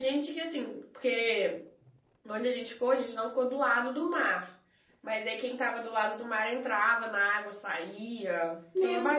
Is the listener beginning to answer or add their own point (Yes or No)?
Yes